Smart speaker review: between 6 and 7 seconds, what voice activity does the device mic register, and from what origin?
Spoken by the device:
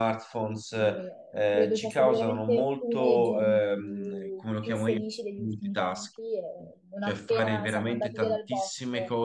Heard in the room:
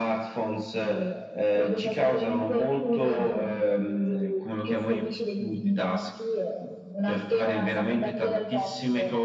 echo only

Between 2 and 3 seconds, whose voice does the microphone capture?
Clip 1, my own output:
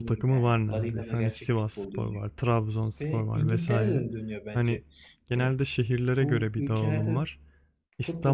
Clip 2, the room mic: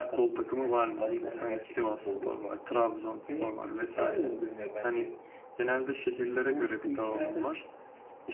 echo only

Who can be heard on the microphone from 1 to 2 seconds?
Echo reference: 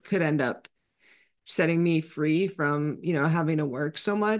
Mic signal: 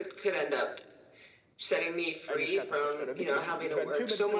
echo only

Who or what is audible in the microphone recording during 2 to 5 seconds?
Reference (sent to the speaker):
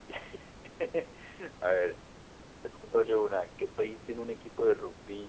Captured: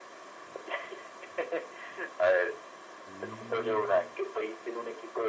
both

